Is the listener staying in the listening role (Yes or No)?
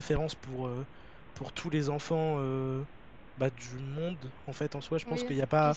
No